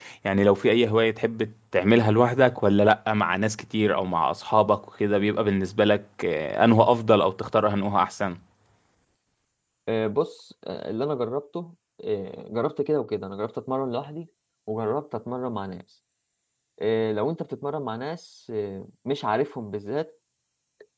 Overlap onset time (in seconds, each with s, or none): none